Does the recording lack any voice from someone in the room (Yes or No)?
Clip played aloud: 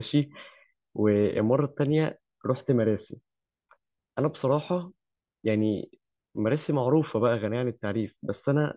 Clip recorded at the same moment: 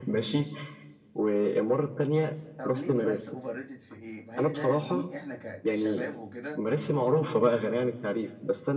No